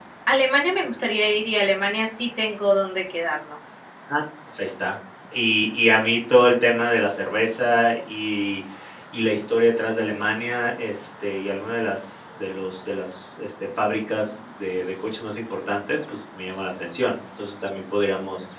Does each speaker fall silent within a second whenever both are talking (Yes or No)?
Yes